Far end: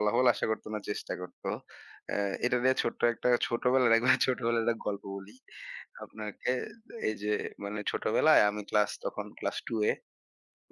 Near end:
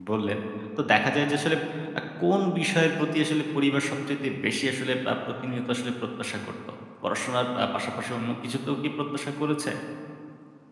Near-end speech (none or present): present